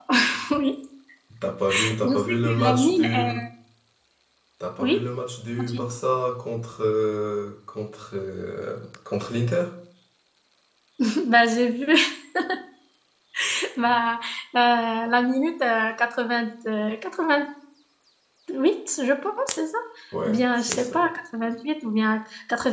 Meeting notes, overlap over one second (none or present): present